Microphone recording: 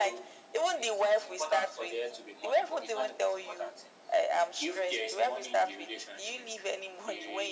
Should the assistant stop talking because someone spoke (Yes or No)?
No